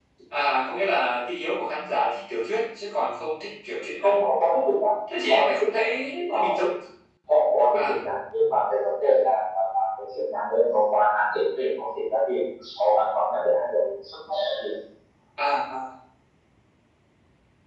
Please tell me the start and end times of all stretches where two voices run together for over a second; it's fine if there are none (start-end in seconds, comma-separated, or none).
5.3-6.5